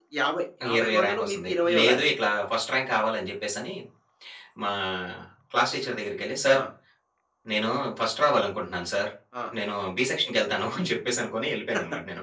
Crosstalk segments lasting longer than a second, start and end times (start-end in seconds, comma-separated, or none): 0.8-2.0